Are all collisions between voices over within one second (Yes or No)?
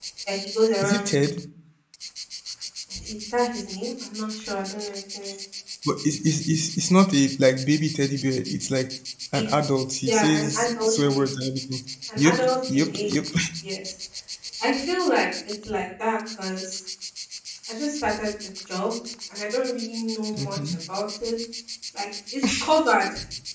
No